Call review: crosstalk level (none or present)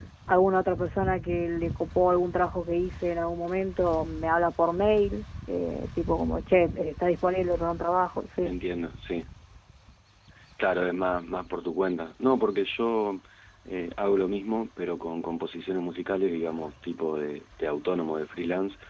none